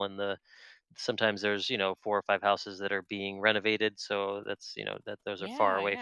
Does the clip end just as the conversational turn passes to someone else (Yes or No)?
No